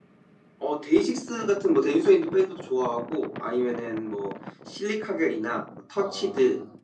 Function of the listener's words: listening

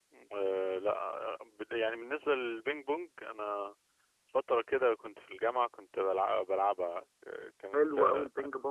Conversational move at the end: taking over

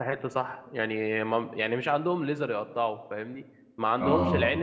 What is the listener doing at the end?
listening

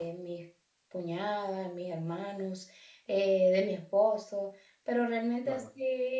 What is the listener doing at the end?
listening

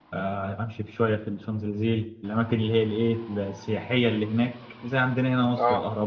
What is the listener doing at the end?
listening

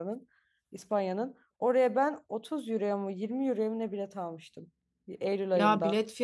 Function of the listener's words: taking over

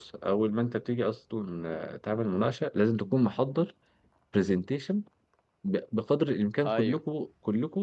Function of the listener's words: listening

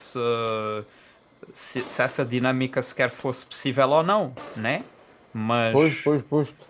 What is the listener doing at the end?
taking over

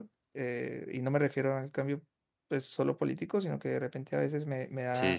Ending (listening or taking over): listening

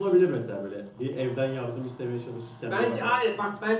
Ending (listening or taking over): taking over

